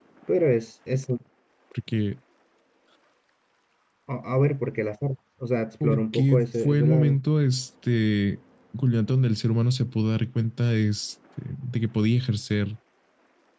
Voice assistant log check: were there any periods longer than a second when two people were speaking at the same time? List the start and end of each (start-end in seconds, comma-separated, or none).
5.8-7.2